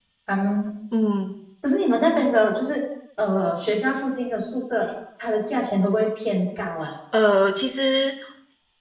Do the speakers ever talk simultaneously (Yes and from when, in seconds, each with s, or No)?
No